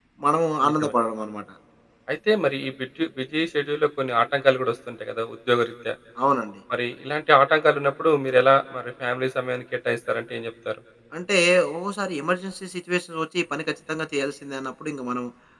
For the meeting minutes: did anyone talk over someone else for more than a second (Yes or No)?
No